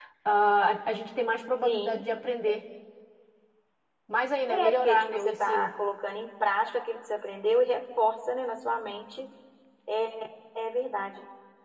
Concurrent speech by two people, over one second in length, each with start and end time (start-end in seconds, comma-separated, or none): 4.5-5.7